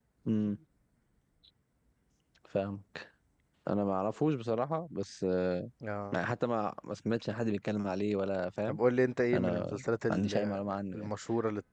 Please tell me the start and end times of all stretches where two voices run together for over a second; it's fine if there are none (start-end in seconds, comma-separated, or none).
9.3-10.6